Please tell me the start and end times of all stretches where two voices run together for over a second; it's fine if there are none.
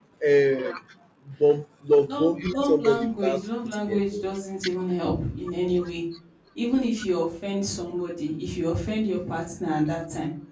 2.1-4.2

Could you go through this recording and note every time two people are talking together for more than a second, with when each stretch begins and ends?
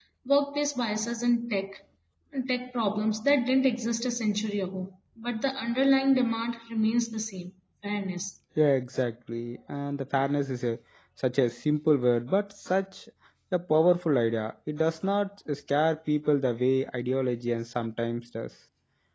none

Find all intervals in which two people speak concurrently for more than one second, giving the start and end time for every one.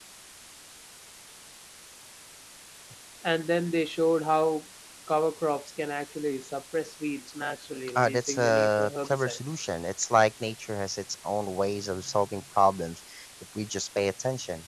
7.9-9.7

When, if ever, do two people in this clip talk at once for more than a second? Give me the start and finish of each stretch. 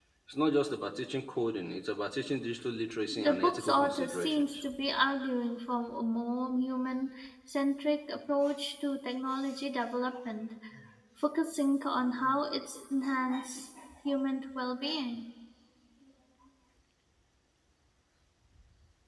3.2-4.6

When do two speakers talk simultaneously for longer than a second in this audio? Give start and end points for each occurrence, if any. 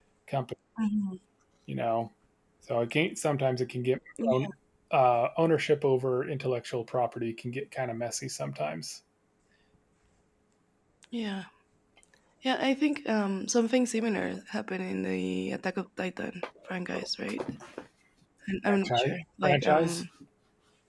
18.7-20.0

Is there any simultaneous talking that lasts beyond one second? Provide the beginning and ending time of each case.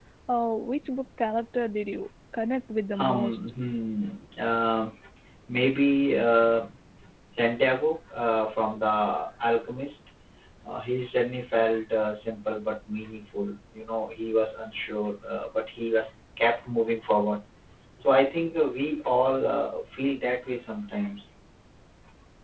none

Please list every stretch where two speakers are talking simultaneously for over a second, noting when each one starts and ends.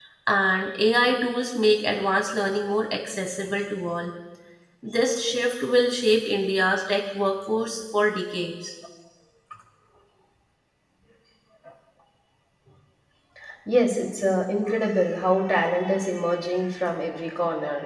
none

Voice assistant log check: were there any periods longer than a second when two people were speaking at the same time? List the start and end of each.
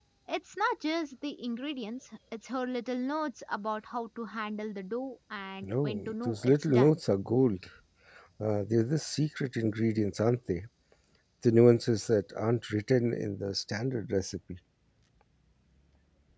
5.6-7.0

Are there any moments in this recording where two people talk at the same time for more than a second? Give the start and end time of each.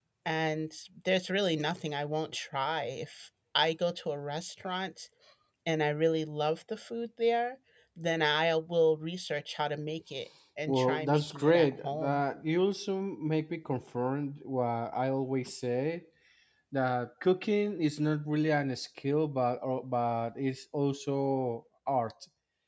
10.7-12.2

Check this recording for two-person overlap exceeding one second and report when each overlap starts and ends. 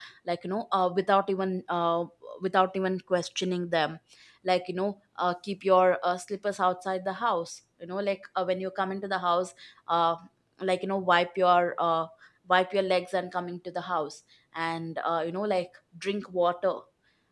none

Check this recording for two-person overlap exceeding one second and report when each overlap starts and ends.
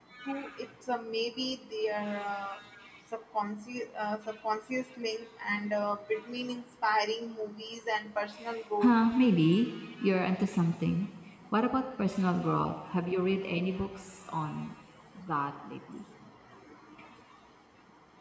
none

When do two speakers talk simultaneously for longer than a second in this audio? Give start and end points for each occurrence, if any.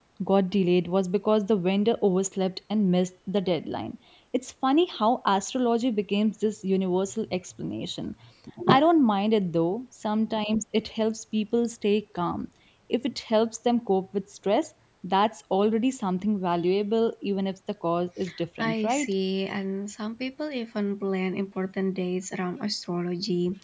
none

